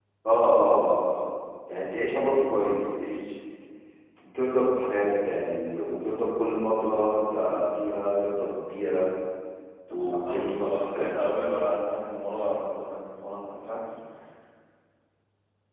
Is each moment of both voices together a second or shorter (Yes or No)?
No